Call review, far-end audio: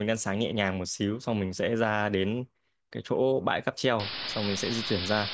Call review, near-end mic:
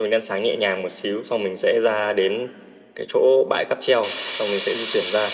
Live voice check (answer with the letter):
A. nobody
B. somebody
A